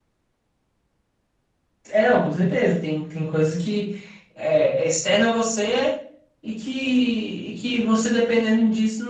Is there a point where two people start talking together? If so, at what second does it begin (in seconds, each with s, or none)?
none